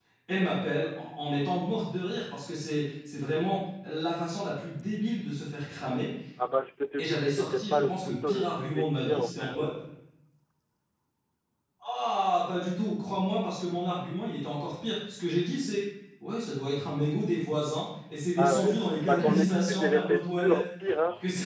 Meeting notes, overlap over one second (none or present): present